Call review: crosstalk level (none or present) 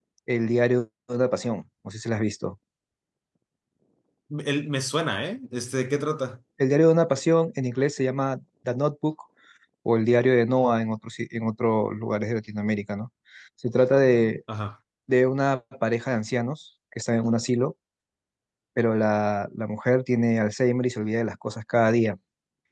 none